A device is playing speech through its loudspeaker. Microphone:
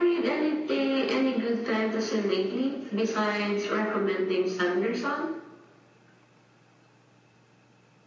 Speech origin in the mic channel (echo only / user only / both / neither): echo only